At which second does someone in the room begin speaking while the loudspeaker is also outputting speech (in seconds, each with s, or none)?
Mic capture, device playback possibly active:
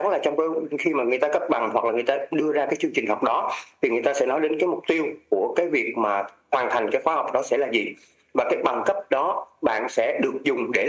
none